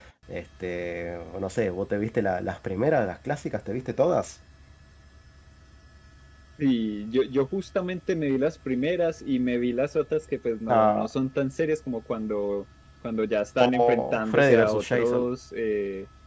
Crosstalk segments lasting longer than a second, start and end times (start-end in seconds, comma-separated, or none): 13.6-15.2